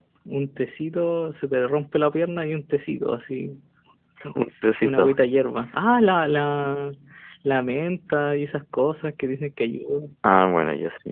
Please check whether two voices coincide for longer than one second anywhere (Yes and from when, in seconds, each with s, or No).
No